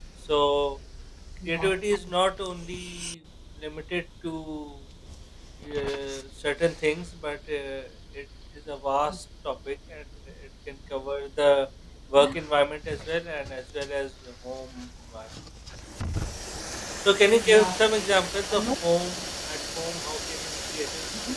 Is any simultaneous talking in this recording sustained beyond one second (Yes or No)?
No